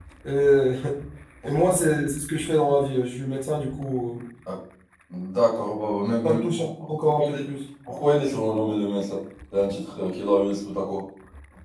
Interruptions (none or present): present